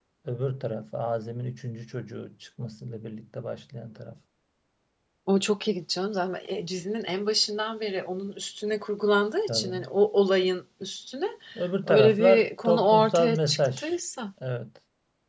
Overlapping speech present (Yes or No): Yes